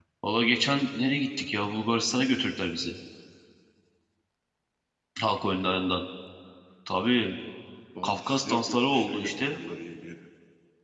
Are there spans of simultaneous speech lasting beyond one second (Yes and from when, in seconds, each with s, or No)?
Yes, from 8.0 s